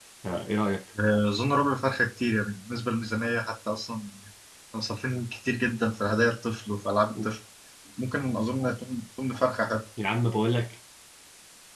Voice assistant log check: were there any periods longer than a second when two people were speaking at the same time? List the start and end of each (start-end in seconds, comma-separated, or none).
none